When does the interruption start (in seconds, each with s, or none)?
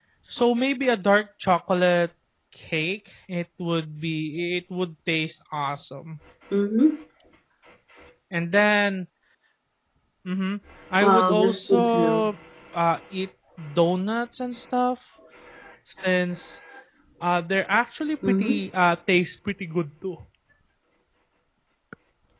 11.0 s